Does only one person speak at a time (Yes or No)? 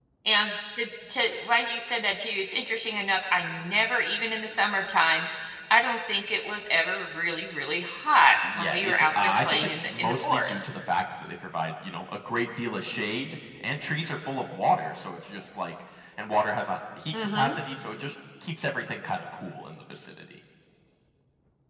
No